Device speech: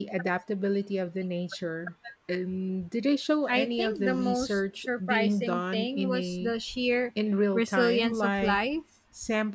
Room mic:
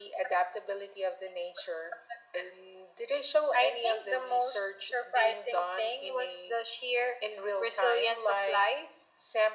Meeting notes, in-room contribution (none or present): none